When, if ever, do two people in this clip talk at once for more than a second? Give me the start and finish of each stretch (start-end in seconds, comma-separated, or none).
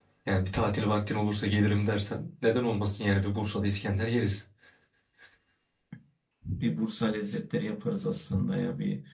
none